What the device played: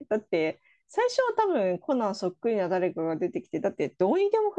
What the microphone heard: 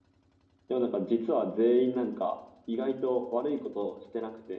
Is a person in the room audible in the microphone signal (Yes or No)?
Yes